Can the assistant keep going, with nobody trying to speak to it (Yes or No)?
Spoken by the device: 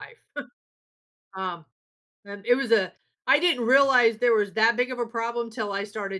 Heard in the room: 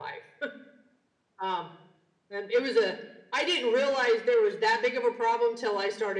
Yes